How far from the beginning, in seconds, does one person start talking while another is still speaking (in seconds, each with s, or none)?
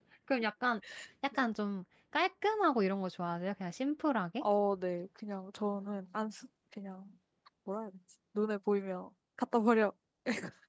none